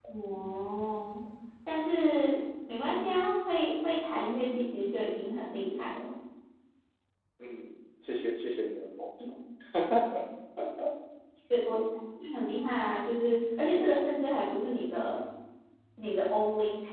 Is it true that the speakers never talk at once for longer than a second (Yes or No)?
Yes